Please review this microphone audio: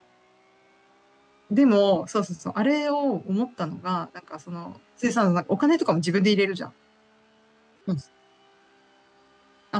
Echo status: none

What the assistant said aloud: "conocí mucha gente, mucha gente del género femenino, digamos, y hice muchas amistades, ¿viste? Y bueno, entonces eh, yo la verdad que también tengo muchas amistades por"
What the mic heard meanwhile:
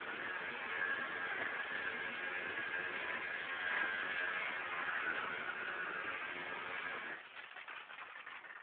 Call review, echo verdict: none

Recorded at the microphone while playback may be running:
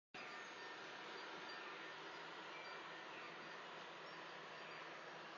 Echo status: none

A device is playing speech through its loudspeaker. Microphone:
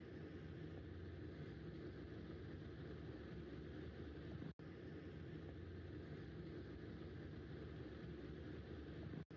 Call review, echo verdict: none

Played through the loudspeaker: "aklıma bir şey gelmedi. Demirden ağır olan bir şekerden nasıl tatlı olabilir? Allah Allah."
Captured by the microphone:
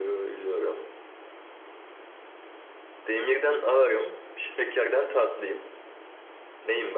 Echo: none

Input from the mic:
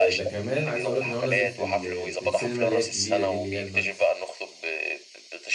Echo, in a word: present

